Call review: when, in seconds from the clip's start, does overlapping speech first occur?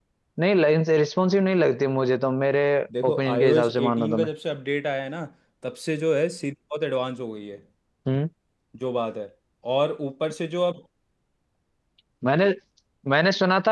3.1 s

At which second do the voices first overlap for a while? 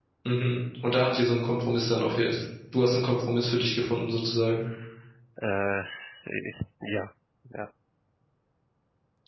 none

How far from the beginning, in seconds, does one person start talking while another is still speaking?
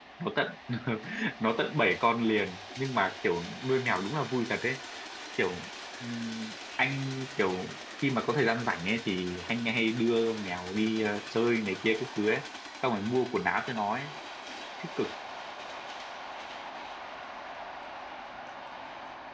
none

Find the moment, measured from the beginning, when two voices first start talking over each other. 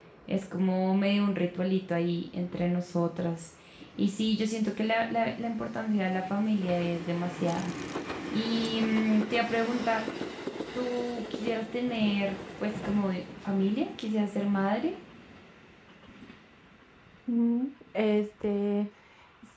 none

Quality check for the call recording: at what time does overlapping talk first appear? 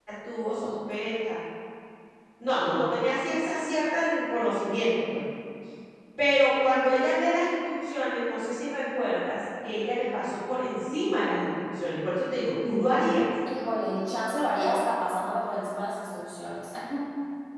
none

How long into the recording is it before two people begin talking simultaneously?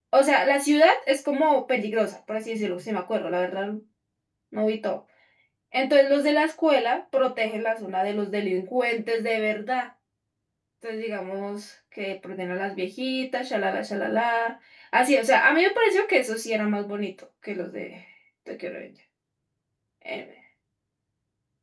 none

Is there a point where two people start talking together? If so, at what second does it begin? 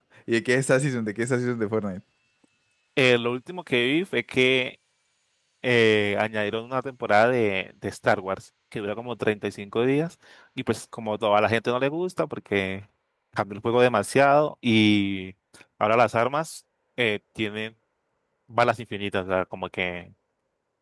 none

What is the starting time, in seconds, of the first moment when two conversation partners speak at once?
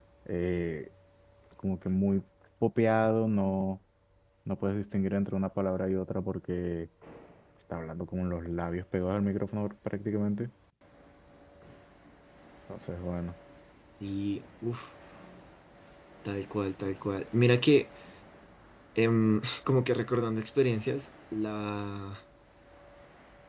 none

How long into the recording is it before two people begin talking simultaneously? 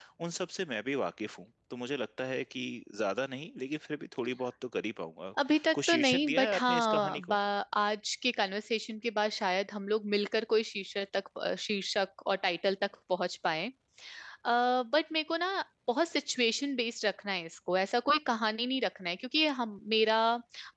5.7 s

